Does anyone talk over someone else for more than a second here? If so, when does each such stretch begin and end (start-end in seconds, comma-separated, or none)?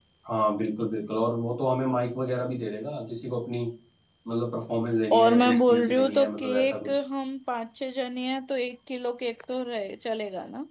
5.1-7.0